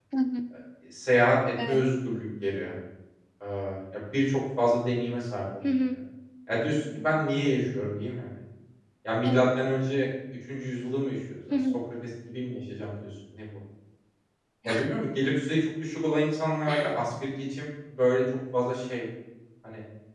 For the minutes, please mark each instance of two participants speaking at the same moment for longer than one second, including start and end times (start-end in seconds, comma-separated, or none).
none